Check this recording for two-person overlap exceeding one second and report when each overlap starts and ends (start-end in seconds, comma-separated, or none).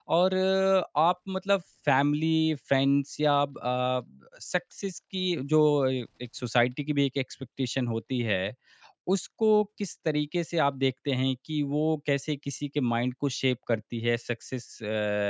none